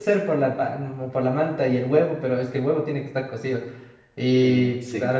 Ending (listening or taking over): listening